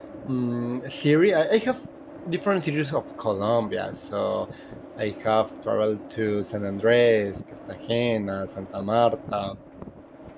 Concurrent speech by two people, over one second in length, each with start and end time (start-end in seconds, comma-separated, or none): none